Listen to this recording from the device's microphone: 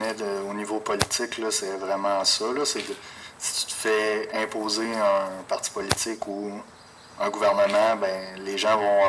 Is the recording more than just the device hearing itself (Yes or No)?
No